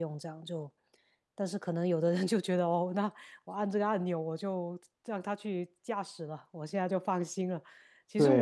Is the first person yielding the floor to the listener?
No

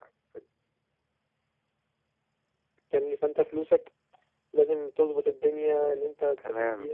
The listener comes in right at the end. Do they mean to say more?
Yes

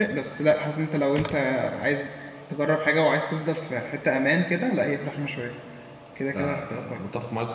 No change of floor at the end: No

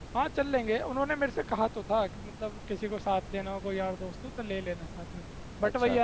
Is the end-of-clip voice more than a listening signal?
No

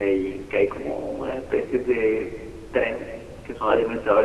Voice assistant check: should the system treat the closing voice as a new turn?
No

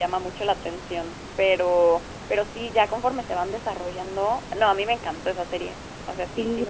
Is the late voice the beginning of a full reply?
Yes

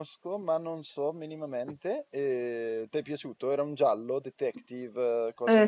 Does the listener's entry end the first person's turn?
Yes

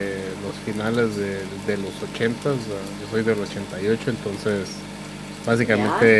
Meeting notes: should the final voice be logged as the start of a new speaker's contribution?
No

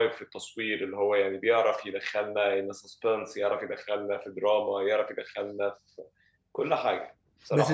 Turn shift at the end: Yes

